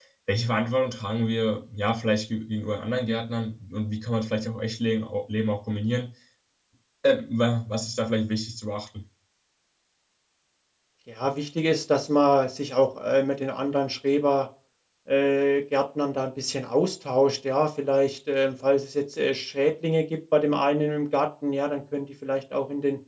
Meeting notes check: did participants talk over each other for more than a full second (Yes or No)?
No